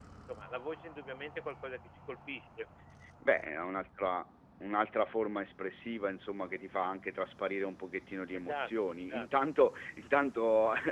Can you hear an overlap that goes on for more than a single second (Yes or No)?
No